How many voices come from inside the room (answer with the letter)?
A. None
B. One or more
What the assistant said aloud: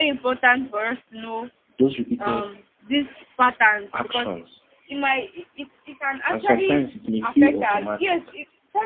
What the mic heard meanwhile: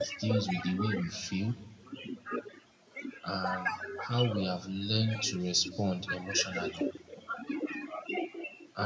B